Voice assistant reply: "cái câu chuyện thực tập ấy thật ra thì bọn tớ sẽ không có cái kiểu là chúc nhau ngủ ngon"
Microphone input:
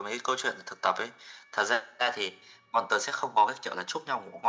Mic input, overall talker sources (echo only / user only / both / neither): echo only